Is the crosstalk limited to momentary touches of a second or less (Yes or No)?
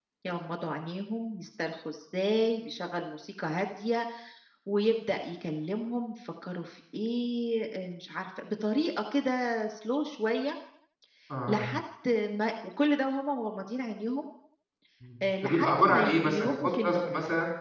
No